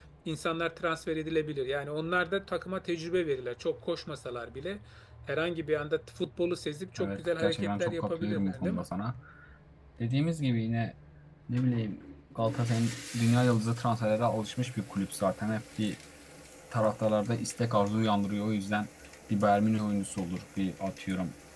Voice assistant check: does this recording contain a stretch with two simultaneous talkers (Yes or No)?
Yes